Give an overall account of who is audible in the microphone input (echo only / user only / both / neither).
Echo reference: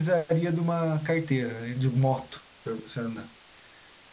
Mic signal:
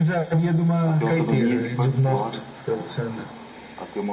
both